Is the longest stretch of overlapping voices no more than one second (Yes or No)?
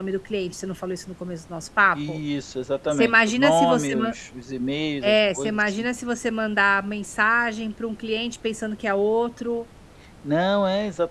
No